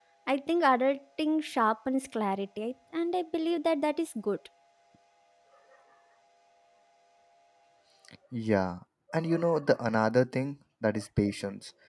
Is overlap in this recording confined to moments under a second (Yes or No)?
Yes